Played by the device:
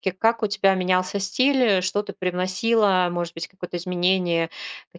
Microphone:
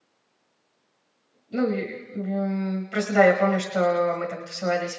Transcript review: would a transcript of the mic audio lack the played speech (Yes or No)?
Yes